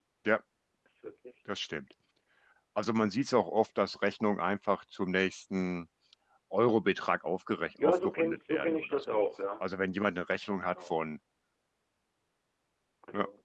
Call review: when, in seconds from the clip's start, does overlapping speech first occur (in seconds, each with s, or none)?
7.8 s